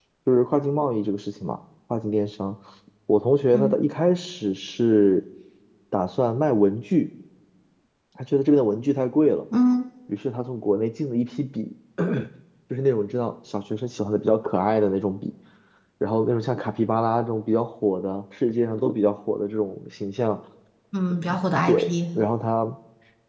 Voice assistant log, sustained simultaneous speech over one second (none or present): none